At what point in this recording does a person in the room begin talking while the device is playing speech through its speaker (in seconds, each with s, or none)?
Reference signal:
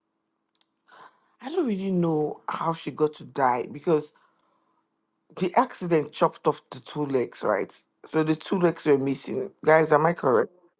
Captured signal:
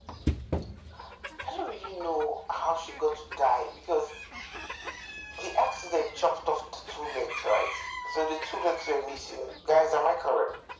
none